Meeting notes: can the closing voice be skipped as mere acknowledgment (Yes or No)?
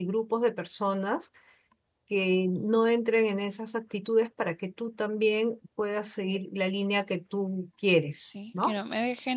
No